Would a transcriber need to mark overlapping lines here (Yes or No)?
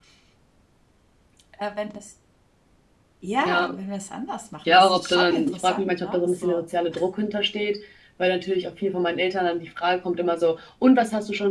Yes